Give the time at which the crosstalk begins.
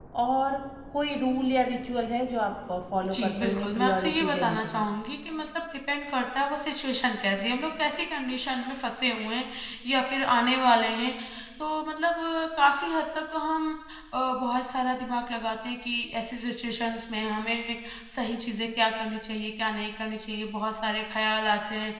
3.0 s

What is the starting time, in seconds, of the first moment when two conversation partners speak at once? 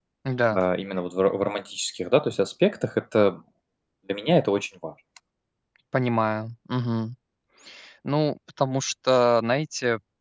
none

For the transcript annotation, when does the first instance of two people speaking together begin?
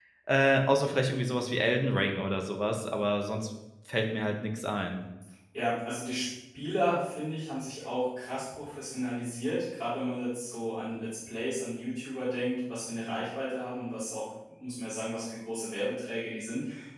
none

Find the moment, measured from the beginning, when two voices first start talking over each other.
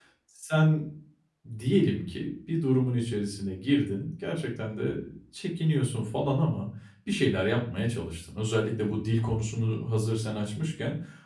none

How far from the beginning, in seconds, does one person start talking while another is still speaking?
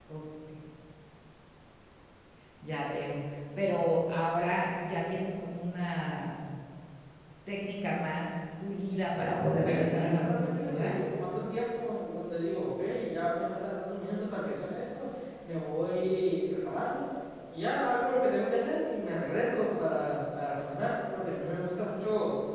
9.6 s

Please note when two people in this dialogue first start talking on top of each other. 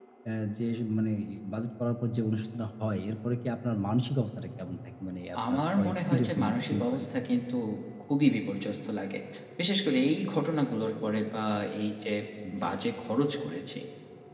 5.3 s

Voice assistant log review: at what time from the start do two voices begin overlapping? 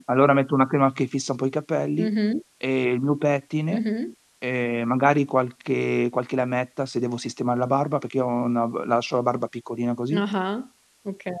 none

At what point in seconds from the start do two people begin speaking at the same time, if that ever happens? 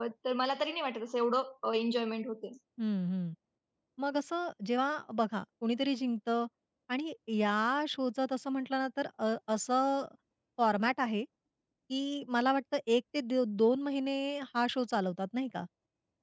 none

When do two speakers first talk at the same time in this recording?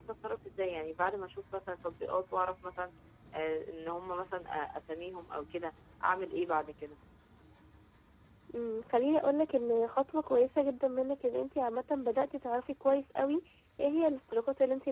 none

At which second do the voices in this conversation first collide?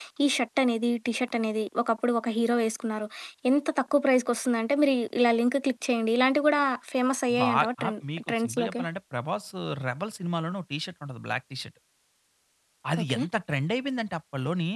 7.3 s

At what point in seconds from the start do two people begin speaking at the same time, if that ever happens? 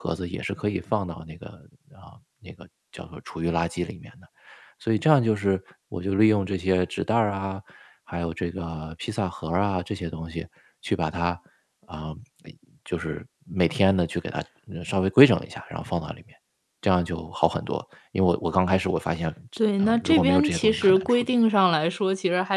19.8 s

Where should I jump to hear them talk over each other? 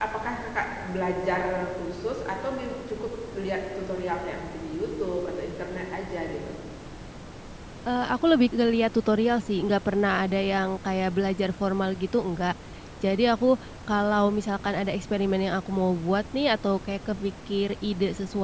none

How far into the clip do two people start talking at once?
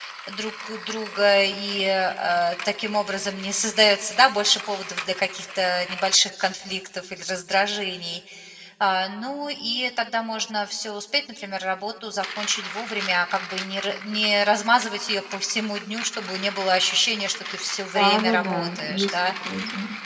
17.9 s

